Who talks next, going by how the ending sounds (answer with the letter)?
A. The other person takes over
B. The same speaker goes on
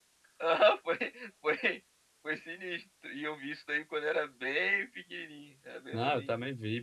A